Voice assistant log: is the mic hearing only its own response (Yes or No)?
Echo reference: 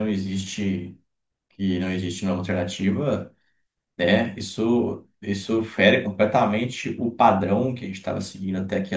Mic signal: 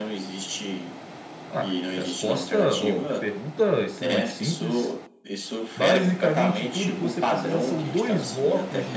No